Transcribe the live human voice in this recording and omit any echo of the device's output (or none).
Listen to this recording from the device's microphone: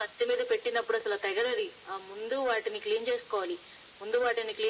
none